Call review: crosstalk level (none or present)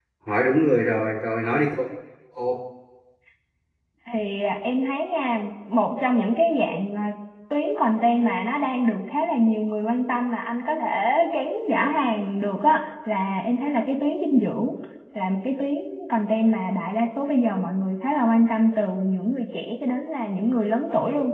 none